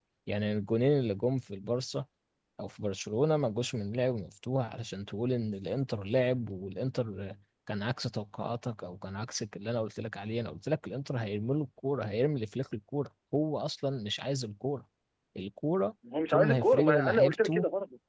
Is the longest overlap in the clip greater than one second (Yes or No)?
Yes